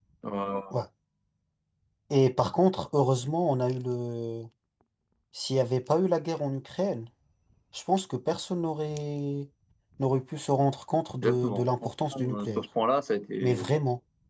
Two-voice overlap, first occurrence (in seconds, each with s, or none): 11.2 s